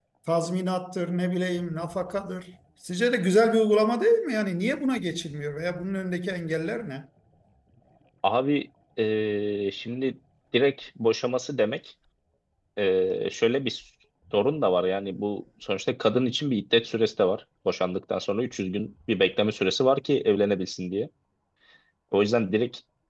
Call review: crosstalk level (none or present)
none